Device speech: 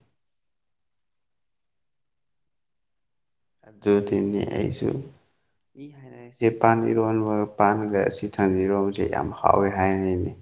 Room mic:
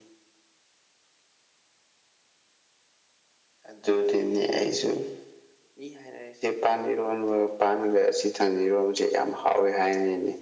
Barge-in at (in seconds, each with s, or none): none